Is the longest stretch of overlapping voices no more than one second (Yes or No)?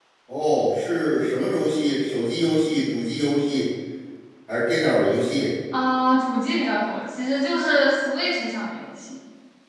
Yes